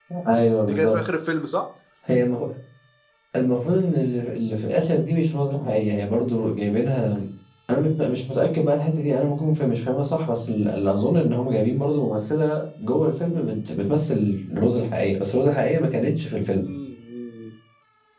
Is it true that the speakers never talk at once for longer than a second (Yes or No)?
Yes